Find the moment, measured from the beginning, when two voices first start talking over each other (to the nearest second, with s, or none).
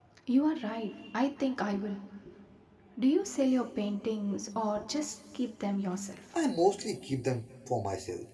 none